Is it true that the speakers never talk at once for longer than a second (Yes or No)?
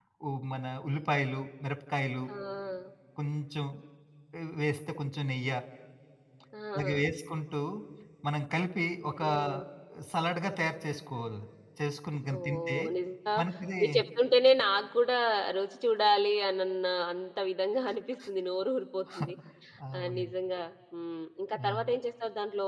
Yes